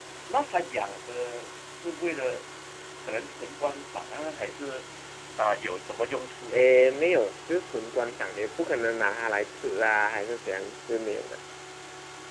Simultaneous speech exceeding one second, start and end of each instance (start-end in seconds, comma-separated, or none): none